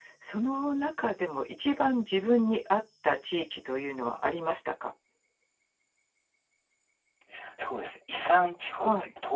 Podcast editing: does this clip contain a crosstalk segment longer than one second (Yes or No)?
No